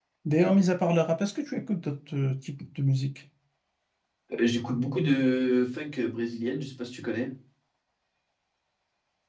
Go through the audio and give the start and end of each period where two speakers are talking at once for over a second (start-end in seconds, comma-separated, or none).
none